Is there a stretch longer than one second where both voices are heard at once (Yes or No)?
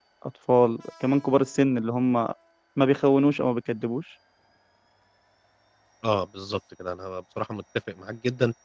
No